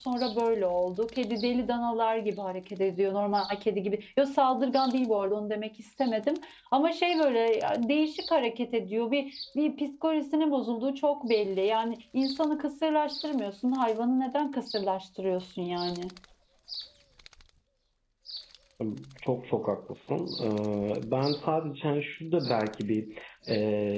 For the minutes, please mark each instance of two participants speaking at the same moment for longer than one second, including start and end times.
none

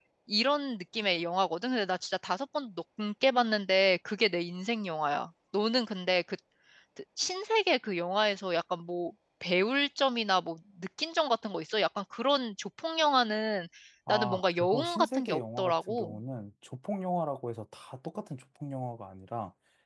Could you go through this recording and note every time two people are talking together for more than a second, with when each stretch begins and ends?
14.1-16.2

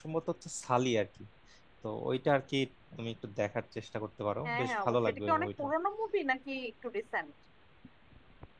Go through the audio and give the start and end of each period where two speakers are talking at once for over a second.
4.4-5.6

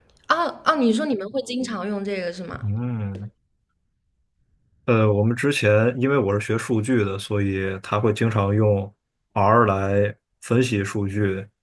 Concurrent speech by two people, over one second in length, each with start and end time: none

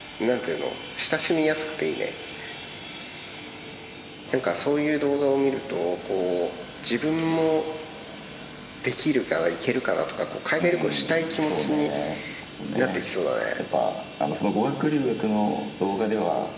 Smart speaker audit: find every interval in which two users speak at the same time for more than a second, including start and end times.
10.6-11.9

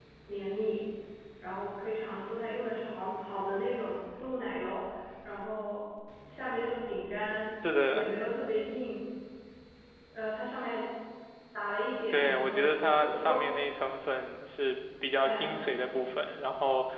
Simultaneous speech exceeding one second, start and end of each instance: 12.1-13.4

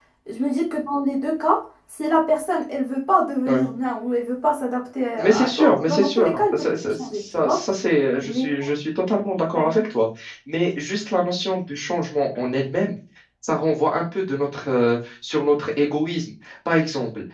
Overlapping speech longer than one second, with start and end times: 5.2-7.6

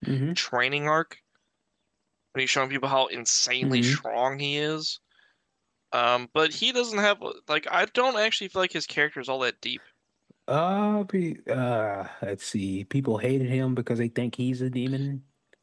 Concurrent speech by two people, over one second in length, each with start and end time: none

